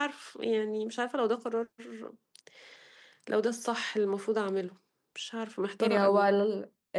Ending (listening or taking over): taking over